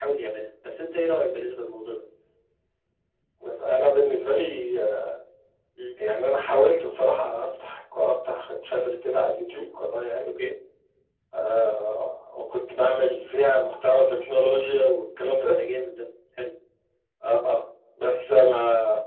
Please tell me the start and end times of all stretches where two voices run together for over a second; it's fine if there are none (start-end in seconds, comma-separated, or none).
none